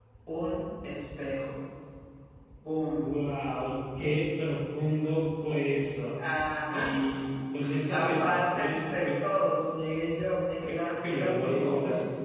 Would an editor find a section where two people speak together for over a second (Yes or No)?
Yes